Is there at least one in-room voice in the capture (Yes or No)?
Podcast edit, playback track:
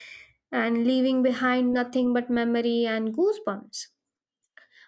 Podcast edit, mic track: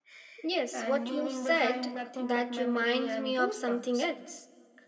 Yes